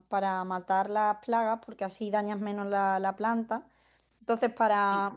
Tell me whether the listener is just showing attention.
Yes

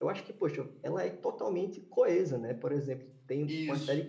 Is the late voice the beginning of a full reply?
No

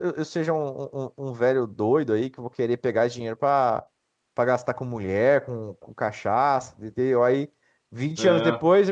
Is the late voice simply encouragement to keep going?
Yes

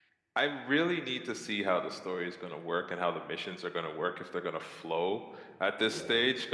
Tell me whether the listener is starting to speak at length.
No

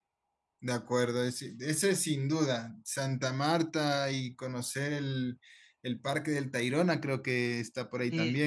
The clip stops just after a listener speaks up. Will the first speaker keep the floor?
No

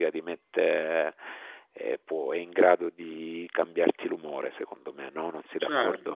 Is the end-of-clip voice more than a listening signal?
Yes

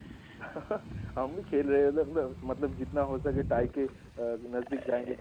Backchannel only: No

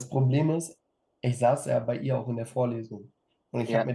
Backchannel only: Yes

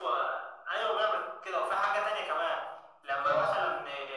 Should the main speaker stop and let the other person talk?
No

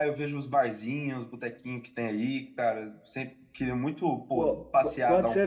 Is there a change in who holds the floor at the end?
Yes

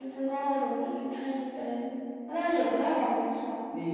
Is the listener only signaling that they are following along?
No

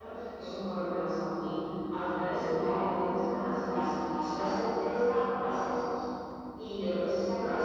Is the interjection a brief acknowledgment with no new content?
Yes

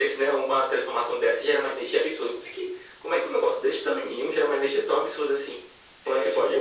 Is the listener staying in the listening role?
No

